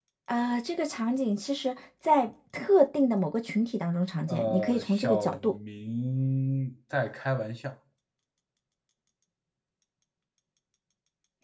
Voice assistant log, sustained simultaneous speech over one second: present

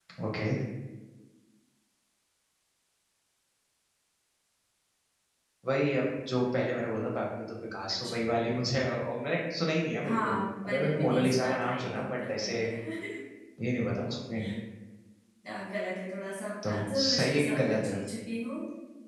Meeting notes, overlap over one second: present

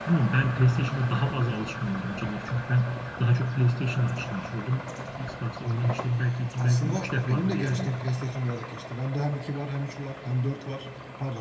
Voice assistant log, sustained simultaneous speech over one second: present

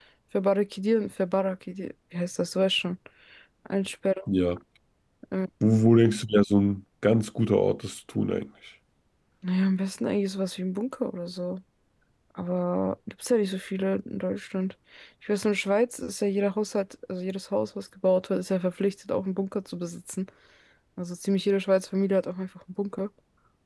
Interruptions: none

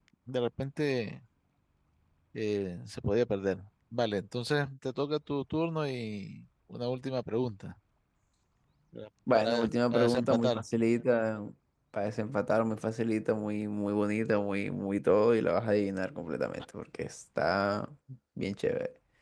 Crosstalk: present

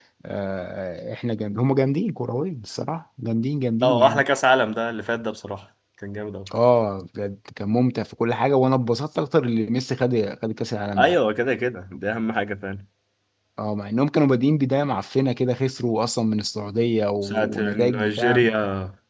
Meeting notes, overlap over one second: present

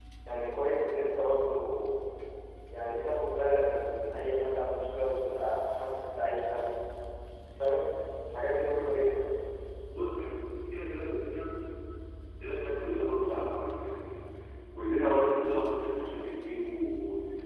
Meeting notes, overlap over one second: none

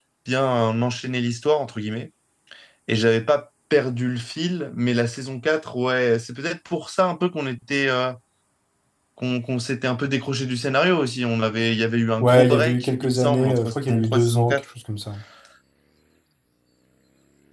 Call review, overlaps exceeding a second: present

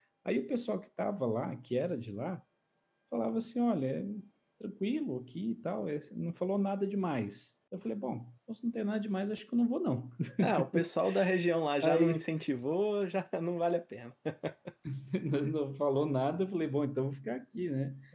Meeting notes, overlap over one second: none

